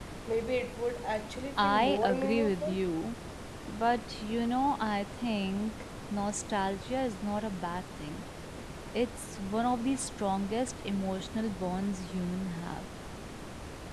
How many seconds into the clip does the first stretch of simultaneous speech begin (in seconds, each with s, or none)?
1.6 s